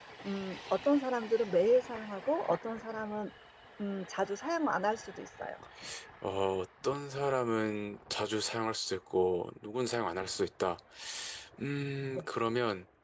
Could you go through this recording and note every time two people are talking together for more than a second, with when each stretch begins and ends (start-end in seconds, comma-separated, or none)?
none